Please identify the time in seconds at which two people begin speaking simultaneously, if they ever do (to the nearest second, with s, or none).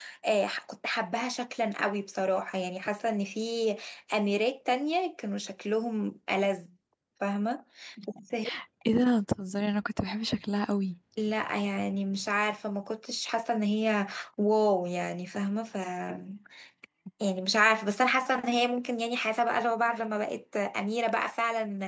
none